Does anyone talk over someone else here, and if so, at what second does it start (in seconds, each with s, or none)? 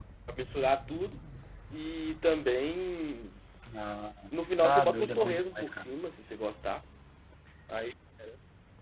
4.6 s